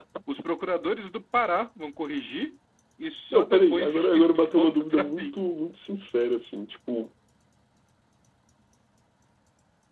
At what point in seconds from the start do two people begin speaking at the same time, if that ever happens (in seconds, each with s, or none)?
3.3 s